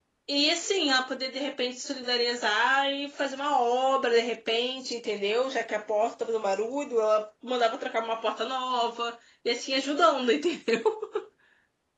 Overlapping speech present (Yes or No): No